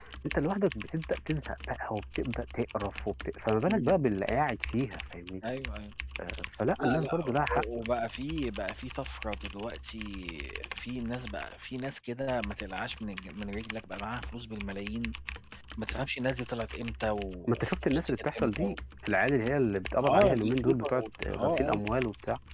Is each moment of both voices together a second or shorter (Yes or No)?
No